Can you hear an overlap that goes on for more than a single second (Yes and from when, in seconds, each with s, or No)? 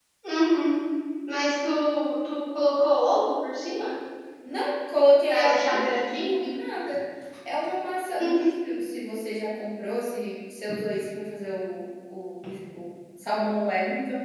Yes, from 5.3 s